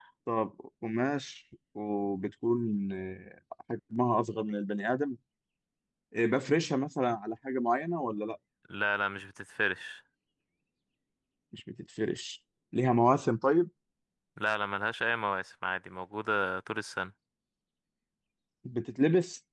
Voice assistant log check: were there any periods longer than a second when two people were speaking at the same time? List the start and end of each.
none

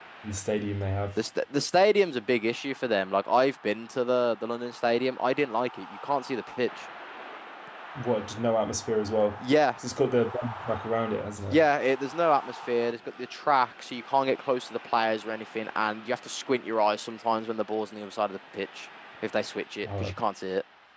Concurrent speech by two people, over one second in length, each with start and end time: none

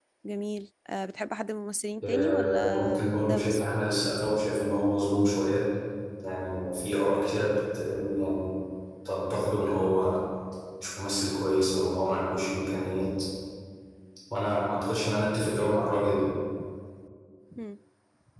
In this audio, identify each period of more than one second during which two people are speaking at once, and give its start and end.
2.0-3.6

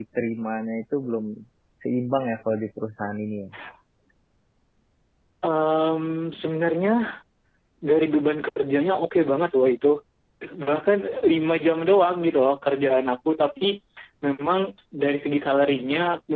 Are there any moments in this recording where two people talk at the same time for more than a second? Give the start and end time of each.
none

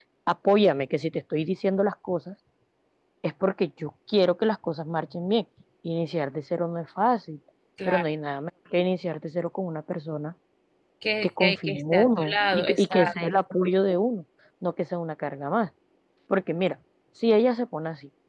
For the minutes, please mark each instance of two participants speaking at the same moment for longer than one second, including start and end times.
11.2-13.1

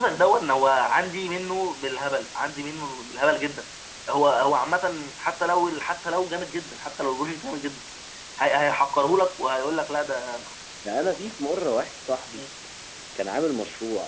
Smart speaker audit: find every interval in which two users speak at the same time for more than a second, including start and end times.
none

